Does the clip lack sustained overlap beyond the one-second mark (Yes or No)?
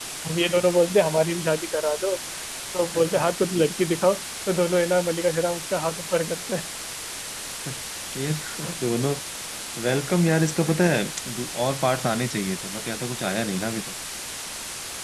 Yes